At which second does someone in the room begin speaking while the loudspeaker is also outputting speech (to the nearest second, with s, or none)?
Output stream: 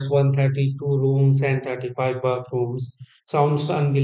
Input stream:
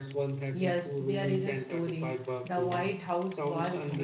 1 s